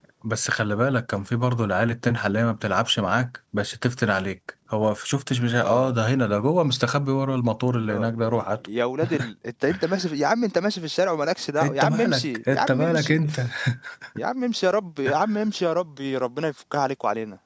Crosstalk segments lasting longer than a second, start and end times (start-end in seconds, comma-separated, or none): 11.6-13.2